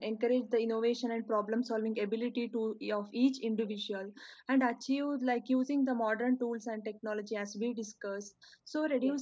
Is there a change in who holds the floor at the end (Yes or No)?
No